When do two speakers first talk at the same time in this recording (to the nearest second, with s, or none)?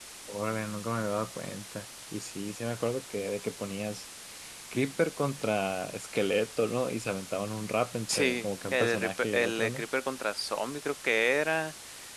8 s